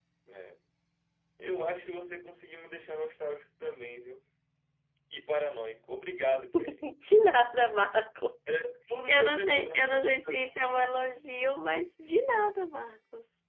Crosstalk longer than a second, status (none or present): present